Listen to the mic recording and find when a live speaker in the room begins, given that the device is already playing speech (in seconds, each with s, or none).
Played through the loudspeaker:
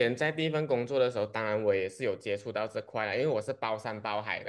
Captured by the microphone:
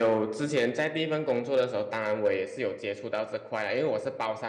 none